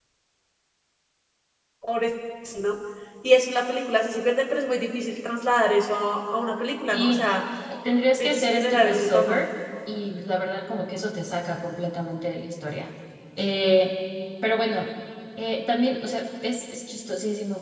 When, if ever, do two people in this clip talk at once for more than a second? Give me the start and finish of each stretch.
8.2-9.4

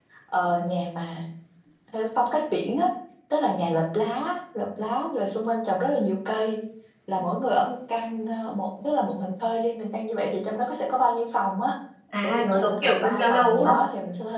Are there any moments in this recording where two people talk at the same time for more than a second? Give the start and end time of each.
12.2-13.7

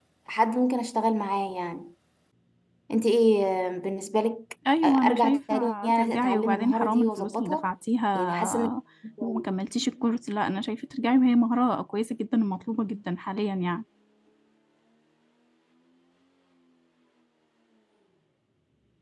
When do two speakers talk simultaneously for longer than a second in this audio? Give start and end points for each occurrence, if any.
4.8-7.7

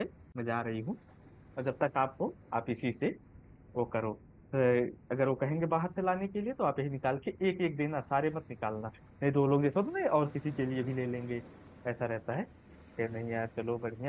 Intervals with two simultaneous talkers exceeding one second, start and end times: none

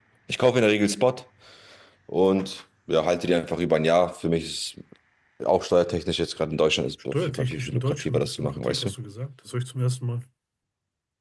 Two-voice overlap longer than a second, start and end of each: 7.1-8.9

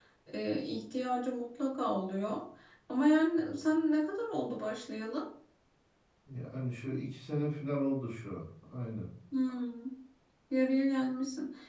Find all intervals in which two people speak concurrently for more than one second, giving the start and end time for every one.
none

